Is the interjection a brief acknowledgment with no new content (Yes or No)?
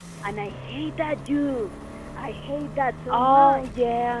No